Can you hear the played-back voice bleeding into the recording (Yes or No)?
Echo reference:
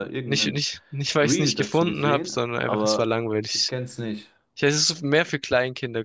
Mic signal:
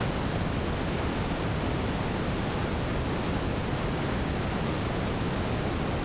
No